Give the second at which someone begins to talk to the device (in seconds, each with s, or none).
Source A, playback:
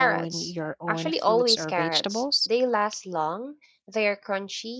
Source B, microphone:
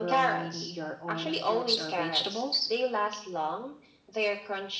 none